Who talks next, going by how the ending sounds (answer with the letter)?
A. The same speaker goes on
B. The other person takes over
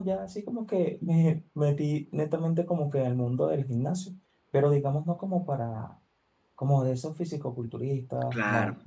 A